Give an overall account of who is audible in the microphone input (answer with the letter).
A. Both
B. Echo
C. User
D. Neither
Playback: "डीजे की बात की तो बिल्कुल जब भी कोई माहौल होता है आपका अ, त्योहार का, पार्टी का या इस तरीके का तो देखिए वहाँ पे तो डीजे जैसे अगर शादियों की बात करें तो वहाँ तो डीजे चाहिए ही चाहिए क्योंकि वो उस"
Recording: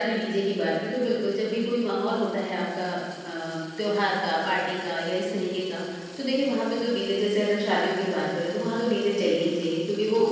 B